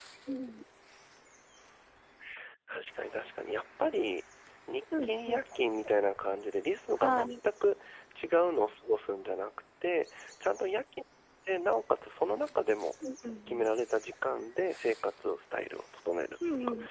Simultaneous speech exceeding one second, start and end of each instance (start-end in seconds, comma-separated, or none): none